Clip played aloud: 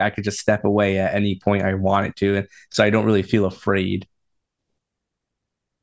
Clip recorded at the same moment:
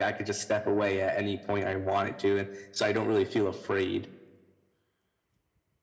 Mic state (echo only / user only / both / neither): echo only